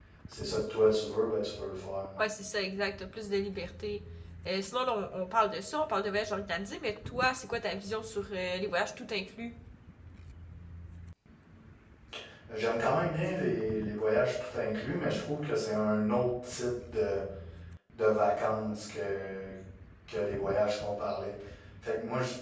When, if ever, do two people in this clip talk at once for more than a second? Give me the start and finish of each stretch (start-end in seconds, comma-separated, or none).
none